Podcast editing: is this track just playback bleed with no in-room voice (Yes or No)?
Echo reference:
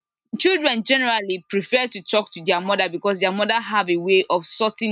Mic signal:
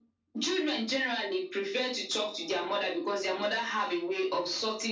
Yes